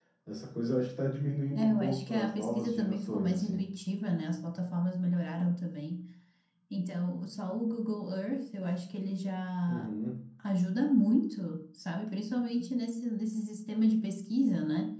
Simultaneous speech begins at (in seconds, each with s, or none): 1.6 s